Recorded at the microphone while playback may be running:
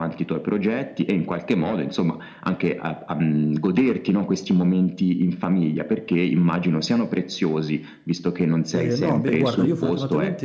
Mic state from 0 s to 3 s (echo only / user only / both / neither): echo only